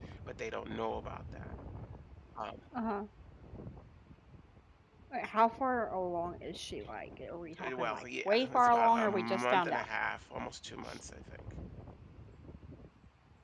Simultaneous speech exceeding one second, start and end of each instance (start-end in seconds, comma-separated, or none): 7.6-9.8